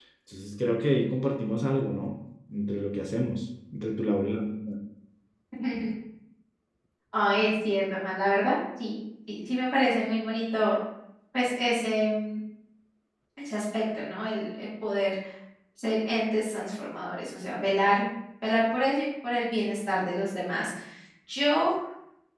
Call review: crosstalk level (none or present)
none